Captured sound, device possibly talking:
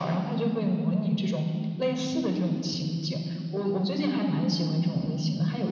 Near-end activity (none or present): none